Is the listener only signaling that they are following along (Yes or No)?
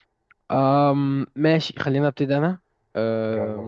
Yes